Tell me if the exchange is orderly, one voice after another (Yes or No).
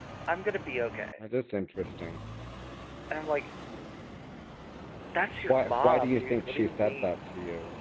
No